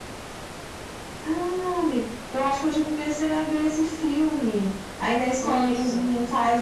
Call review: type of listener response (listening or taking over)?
listening